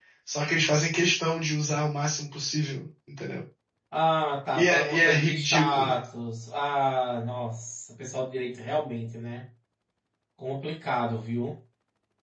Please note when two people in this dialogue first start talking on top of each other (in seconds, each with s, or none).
4.5 s